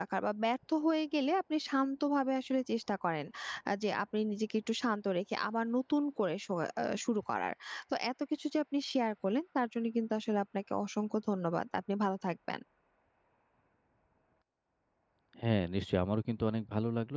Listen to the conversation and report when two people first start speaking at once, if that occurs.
none

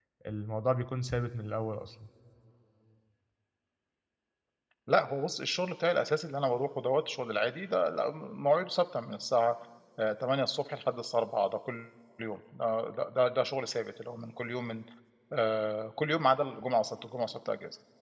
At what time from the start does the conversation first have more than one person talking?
none

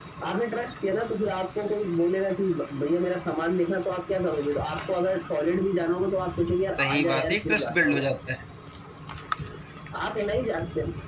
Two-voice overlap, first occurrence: 7 s

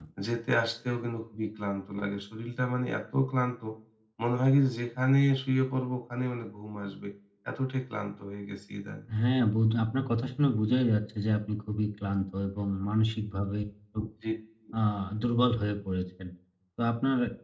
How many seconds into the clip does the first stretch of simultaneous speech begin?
none

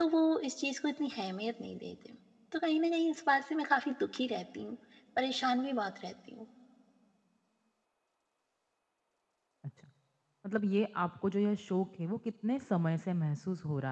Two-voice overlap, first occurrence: none

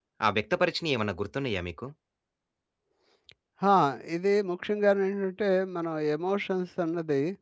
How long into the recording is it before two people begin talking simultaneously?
none

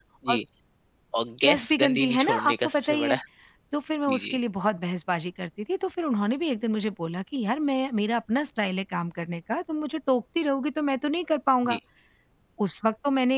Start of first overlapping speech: 1 s

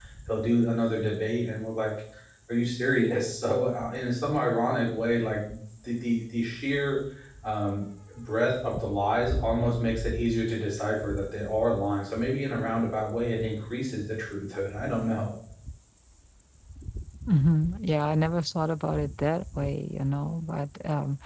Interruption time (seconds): none

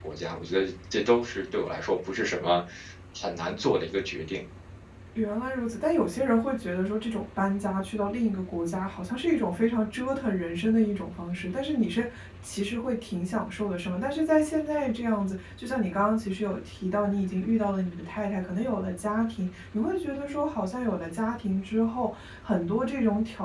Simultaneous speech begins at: none

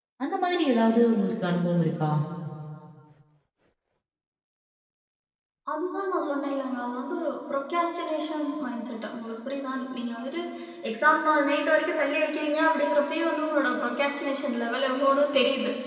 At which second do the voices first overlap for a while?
none

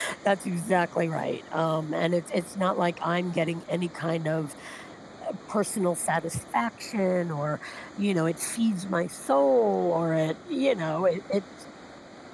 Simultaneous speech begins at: none

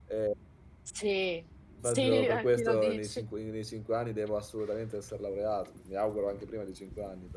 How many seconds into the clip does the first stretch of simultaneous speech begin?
2 s

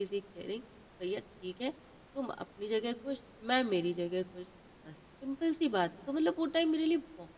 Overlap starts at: none

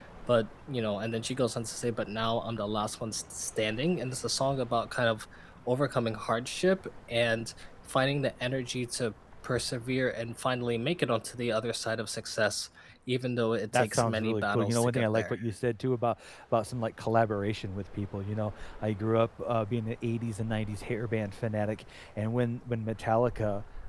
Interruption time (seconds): 14 s

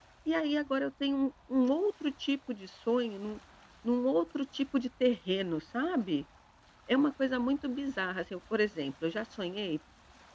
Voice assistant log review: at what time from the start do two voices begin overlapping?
none

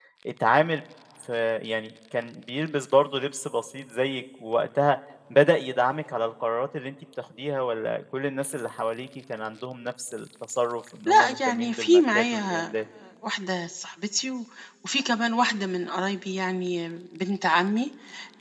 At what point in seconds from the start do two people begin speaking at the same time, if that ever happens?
11 s

